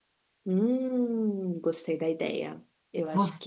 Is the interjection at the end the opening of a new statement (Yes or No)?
No